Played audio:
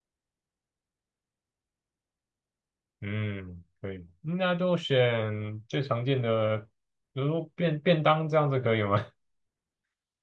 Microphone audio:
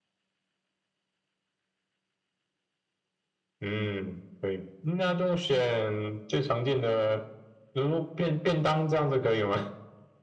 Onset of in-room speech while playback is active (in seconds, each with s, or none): none